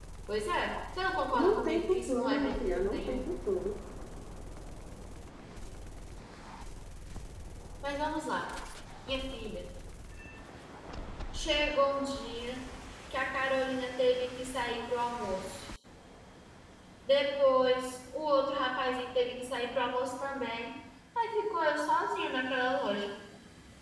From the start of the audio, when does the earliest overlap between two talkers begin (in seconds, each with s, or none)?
1.3 s